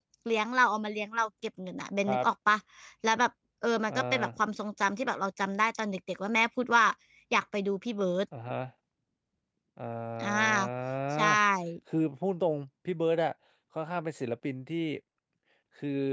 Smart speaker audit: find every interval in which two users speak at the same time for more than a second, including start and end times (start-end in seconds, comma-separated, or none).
none